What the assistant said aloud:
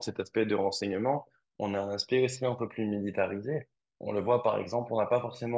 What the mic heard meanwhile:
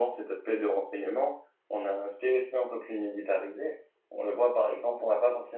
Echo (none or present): present